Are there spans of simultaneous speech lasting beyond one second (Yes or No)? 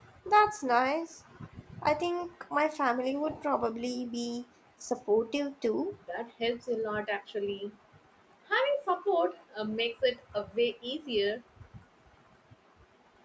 No